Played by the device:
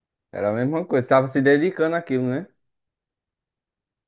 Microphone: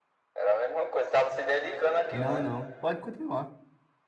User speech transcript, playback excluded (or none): Não, não, pode continuar.